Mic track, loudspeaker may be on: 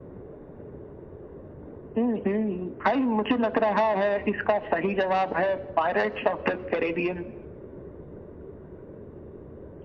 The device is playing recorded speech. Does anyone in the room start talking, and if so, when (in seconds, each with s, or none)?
none